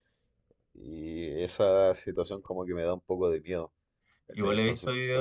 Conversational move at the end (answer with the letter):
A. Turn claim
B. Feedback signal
A